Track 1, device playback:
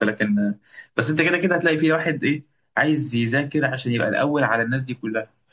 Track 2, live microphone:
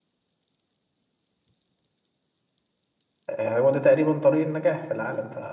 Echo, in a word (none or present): none